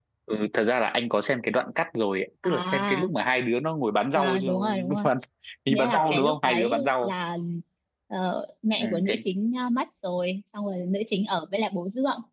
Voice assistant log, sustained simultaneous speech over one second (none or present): present